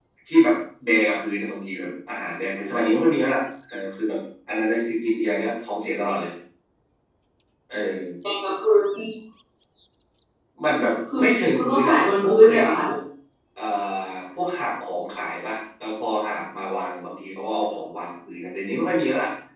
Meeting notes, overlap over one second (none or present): present